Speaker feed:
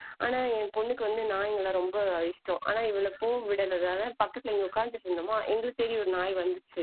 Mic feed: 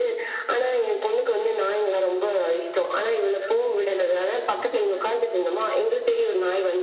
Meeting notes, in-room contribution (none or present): none